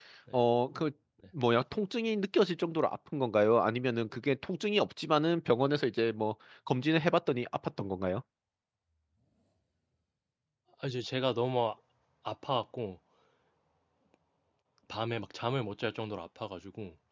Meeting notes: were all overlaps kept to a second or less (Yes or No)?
Yes